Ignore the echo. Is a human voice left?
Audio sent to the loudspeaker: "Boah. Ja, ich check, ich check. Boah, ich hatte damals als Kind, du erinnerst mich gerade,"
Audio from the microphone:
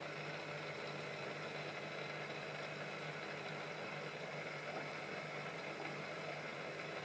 No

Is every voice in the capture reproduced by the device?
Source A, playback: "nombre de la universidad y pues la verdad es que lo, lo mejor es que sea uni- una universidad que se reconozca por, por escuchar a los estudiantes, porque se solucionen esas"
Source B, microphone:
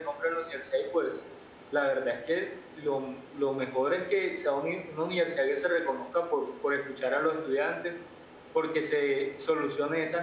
Yes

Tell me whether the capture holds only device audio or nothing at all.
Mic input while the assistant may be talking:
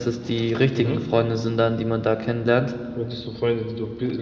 Yes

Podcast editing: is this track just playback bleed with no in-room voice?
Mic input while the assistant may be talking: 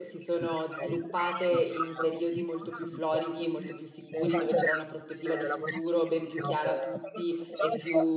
No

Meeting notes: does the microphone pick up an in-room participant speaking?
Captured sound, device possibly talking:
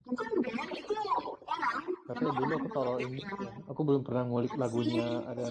Yes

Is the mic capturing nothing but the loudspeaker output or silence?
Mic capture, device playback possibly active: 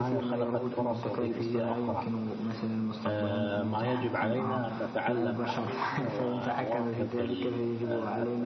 No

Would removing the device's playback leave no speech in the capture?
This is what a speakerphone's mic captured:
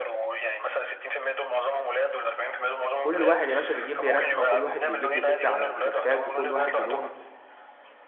No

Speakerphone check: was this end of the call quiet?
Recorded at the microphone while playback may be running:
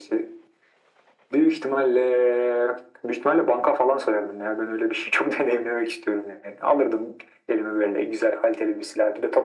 Yes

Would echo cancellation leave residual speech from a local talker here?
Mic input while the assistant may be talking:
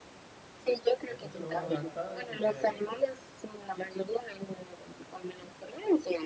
Yes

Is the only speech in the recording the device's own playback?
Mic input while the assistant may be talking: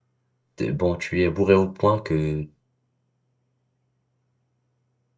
No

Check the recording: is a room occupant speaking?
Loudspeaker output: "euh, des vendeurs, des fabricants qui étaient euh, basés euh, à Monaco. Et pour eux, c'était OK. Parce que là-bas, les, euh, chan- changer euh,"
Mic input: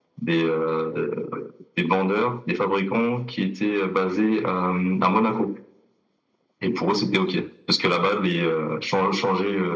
No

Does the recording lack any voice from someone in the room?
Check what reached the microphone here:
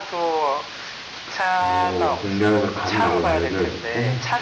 No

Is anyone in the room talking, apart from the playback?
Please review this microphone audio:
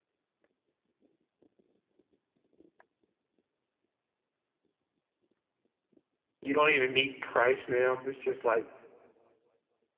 Yes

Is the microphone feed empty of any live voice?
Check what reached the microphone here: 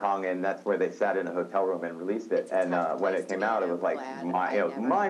Yes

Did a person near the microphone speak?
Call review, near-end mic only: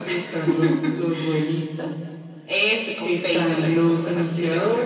No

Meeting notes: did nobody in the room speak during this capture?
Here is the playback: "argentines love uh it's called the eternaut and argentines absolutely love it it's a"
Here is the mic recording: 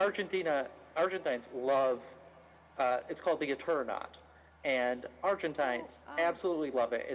No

